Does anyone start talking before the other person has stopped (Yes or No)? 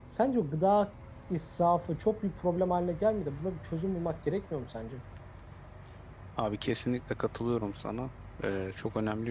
No